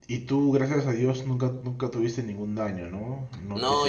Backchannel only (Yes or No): No